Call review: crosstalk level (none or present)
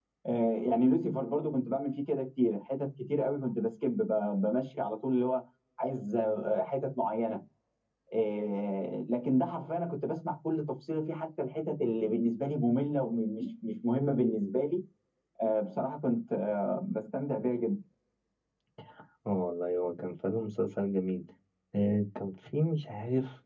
none